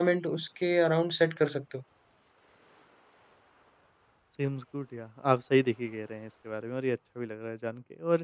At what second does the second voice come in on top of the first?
none

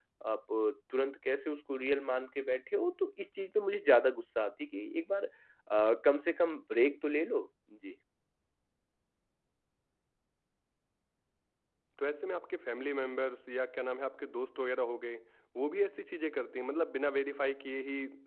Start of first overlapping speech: none

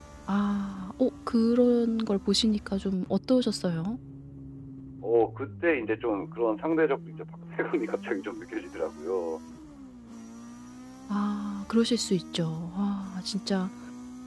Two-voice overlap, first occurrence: none

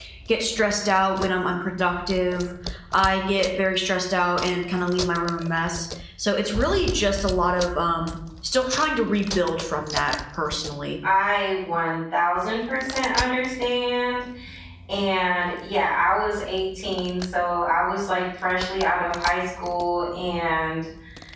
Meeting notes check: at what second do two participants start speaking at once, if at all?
none

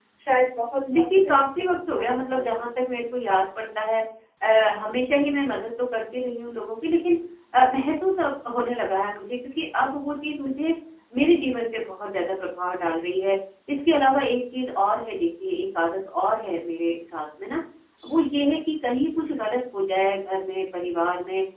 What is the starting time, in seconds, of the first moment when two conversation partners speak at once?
0.9 s

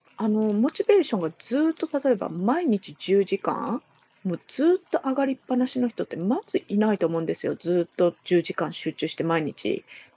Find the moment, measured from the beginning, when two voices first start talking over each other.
none

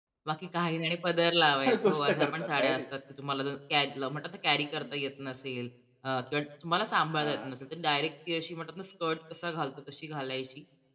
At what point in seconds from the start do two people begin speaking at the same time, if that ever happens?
1.6 s

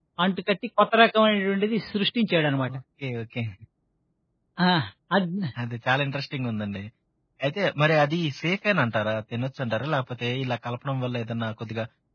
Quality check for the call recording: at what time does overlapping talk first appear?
none

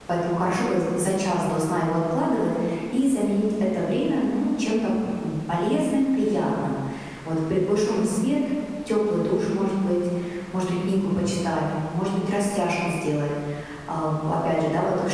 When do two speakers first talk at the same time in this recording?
none

